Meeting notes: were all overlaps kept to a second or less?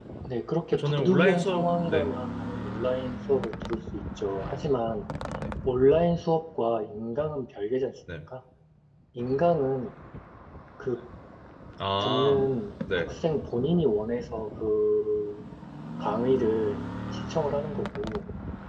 No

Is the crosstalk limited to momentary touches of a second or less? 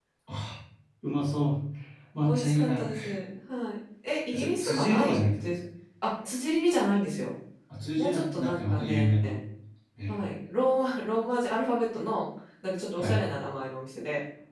No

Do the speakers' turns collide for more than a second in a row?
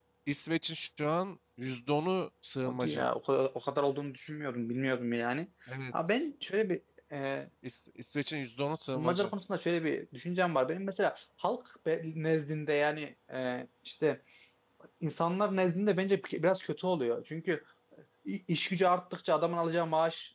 No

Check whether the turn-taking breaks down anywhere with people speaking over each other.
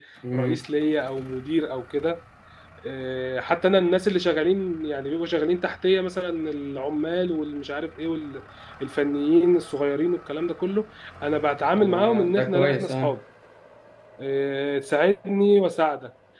Yes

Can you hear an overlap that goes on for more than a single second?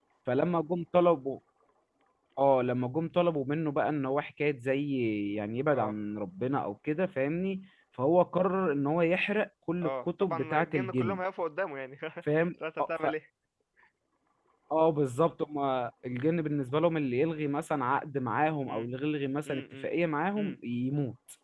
Yes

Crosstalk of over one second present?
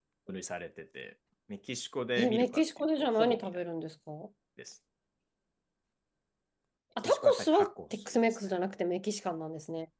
Yes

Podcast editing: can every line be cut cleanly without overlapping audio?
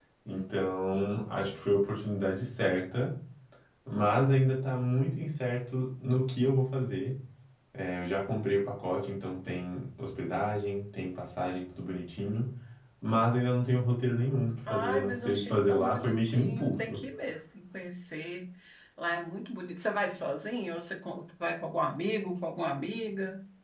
No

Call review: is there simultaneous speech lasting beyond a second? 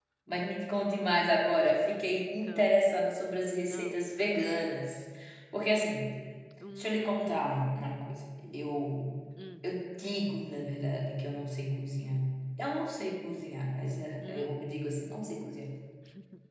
Yes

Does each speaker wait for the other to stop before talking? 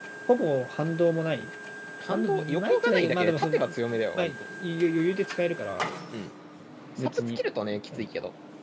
No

